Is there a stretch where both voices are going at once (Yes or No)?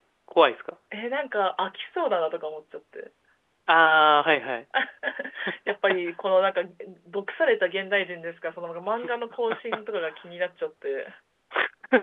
No